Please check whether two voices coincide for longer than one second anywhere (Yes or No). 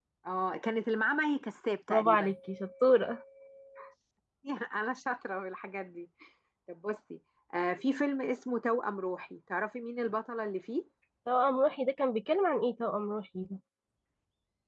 No